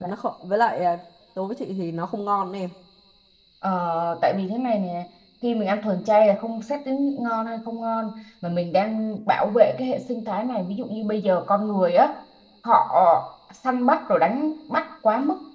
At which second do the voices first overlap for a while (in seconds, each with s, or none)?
none